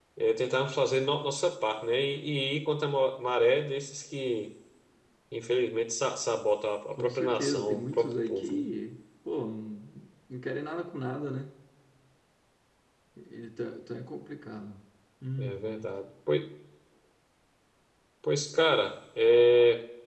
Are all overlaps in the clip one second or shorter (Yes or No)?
No